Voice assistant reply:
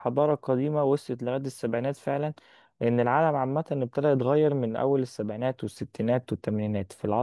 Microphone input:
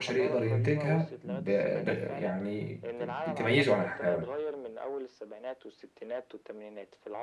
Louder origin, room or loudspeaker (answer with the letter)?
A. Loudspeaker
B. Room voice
B